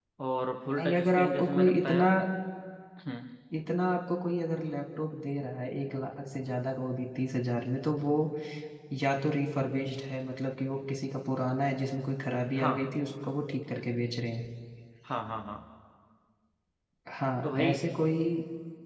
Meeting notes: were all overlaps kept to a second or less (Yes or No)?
No